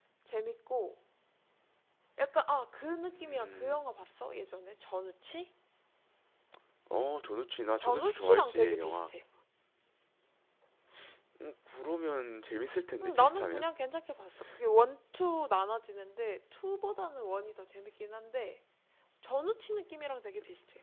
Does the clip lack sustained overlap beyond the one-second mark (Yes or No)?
No